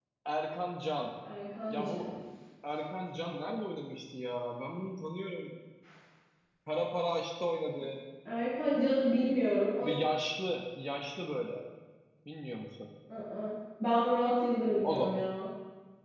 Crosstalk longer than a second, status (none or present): none